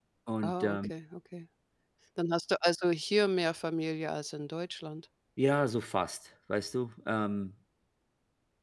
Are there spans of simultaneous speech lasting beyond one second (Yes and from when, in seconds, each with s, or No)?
No